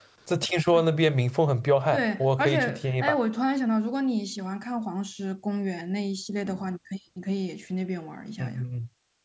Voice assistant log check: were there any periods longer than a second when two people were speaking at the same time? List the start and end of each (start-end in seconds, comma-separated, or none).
1.9-3.2